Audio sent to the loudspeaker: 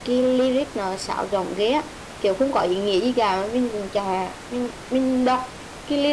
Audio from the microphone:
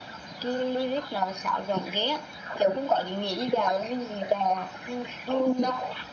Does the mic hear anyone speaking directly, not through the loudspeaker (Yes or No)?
No